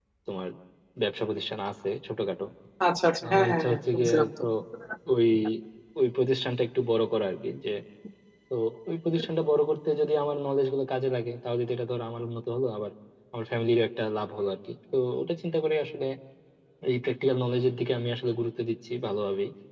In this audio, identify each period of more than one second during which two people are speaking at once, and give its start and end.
3.2-4.4

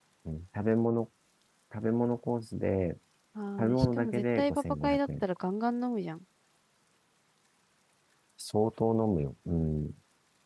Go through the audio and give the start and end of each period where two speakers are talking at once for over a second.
3.6-5.2

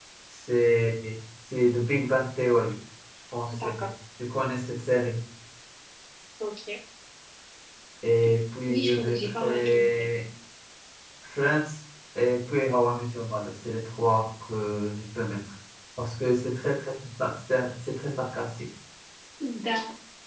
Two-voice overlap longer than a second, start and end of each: 8.7-10.1

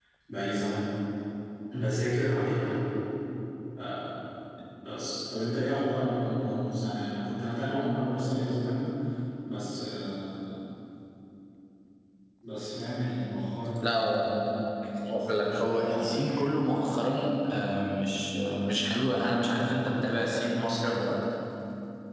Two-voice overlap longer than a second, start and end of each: 15.1-16.6

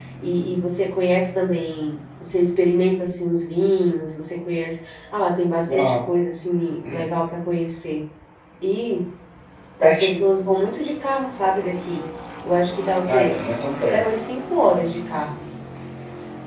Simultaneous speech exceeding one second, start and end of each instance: none

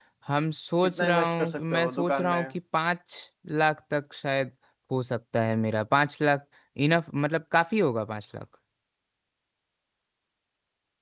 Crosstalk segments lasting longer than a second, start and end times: 0.8-2.4

